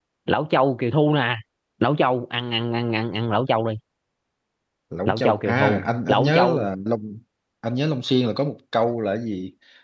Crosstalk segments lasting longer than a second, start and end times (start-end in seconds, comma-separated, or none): 5.0-6.7